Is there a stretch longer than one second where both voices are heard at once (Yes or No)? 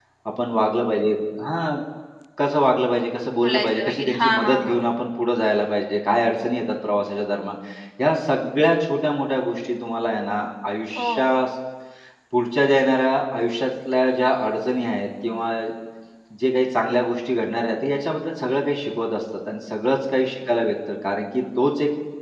Yes